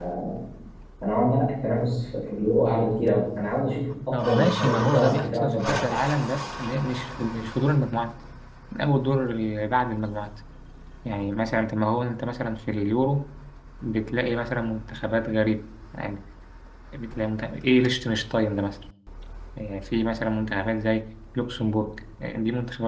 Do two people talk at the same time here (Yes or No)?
Yes